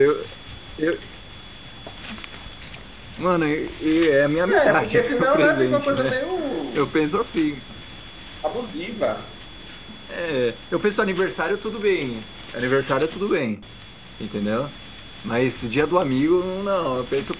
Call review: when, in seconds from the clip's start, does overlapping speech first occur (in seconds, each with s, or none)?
4.5 s